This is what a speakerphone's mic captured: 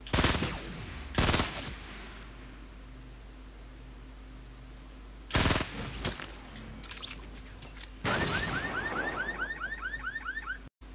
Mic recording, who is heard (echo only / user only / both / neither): neither